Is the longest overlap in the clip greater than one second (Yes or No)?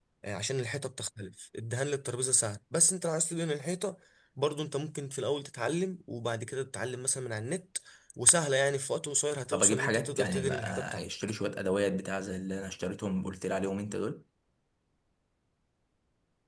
Yes